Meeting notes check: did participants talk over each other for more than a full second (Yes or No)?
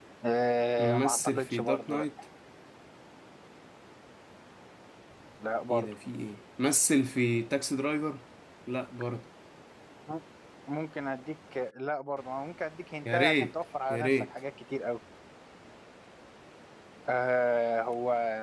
Yes